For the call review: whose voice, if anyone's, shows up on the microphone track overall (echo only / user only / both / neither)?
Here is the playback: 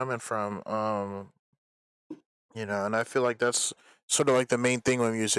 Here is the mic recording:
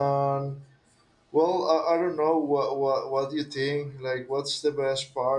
user only